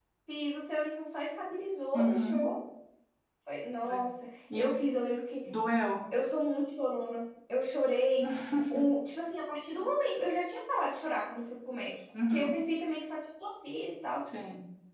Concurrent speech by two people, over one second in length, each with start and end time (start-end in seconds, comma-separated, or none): none